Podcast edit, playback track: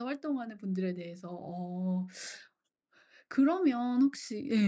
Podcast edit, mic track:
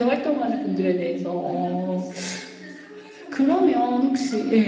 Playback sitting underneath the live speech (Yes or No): No